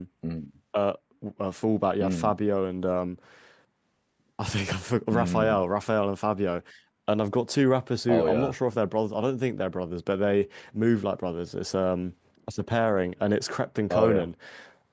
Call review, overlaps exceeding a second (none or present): none